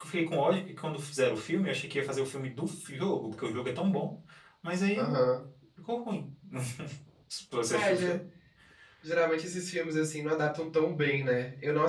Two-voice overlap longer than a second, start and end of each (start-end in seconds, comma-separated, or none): none